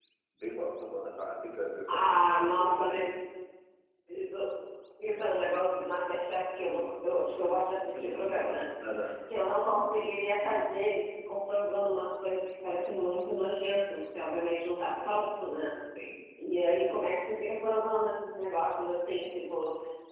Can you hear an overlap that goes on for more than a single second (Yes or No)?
Yes